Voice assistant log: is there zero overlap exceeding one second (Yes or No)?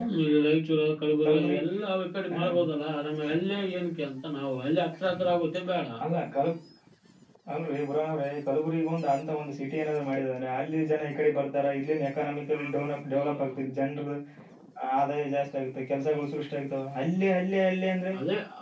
Yes